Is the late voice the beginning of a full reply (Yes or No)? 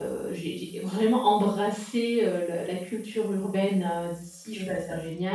No